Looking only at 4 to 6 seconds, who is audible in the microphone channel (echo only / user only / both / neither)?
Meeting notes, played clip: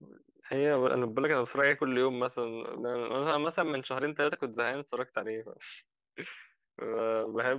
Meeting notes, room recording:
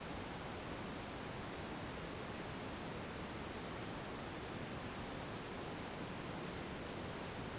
neither